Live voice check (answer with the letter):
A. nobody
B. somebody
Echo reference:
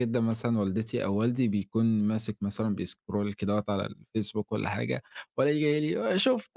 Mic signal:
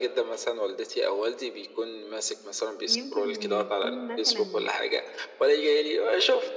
B